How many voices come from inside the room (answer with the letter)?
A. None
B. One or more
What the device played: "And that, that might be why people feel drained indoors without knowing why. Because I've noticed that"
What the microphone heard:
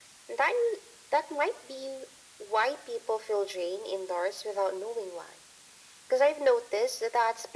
A